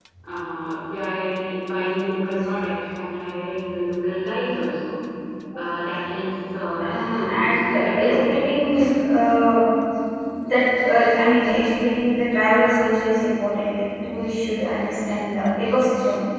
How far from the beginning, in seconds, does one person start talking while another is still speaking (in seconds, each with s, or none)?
6.8 s